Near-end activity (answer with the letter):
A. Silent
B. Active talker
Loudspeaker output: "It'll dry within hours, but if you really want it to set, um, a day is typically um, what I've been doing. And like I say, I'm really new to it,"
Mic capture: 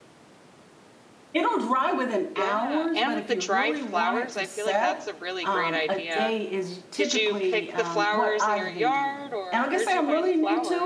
B